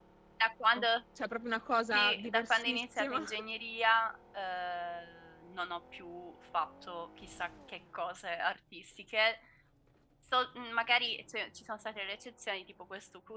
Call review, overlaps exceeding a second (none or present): present